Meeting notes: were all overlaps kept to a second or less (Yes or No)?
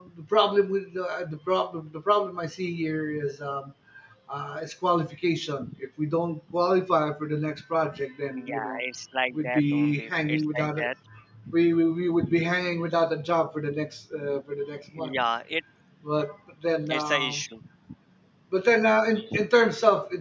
No